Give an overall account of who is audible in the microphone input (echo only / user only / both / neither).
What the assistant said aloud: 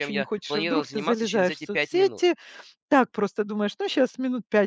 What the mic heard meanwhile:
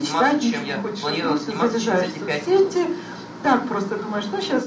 echo only